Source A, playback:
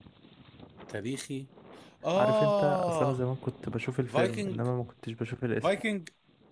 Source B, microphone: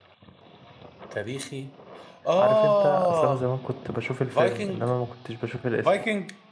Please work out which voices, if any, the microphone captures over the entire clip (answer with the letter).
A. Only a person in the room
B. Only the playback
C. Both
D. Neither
B